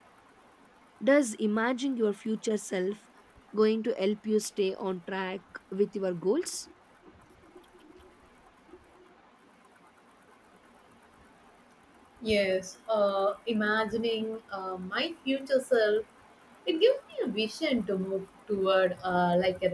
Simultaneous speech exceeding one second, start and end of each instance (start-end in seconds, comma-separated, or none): none